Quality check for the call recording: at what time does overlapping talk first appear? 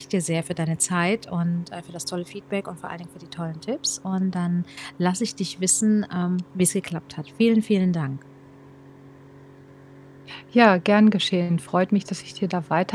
none

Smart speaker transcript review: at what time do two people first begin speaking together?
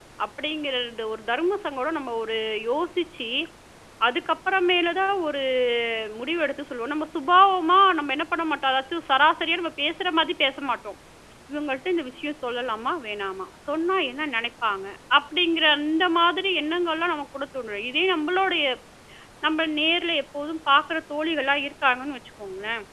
none

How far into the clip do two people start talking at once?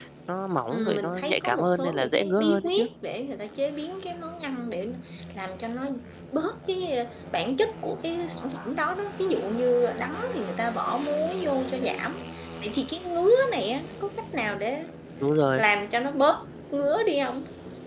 0.7 s

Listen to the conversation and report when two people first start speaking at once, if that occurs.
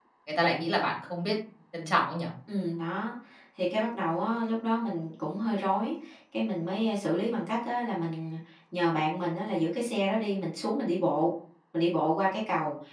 none

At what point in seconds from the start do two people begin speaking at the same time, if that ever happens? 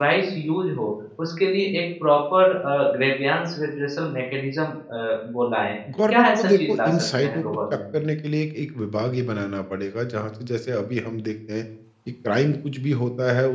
5.9 s

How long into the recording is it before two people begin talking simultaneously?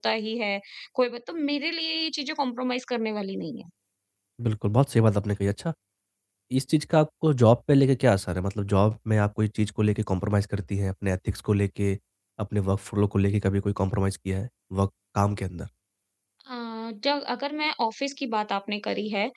none

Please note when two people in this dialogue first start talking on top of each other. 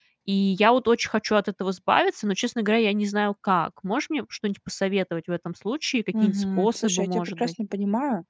6.1 s

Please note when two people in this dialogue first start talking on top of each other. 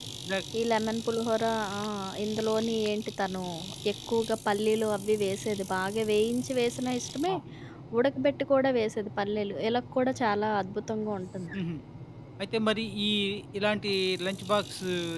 none

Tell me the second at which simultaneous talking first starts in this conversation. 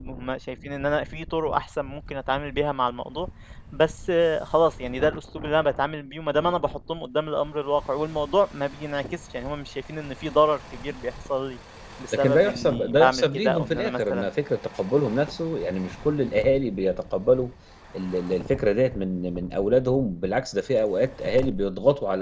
12.1 s

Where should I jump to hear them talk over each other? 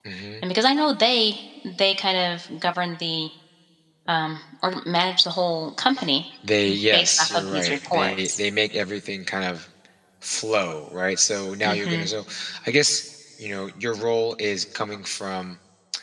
6.9 s

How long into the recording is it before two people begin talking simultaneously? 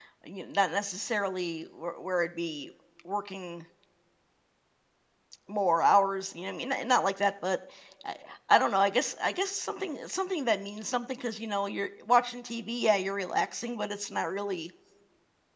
none

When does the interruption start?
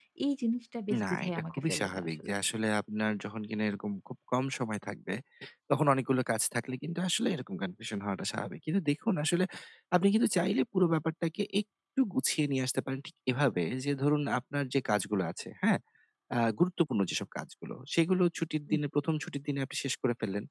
1.0 s

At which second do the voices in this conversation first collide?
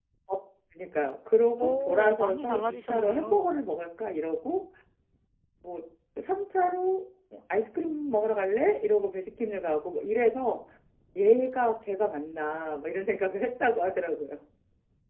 1.6 s

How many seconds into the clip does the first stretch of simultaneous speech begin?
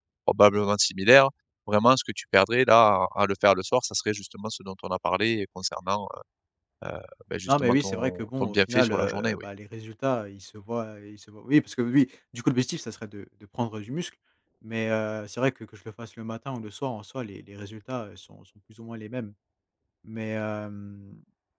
7.5 s

